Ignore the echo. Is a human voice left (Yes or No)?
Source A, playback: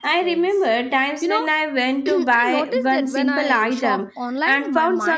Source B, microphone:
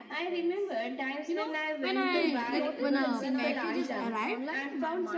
Yes